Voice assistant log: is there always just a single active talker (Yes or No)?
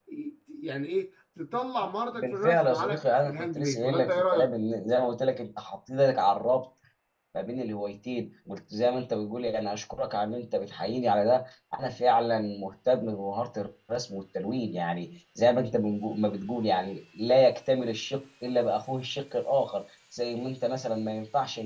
No